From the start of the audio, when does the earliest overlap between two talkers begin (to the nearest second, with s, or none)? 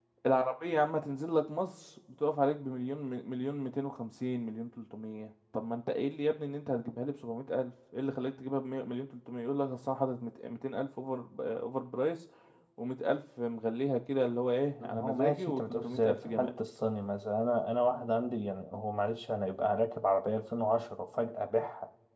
15 s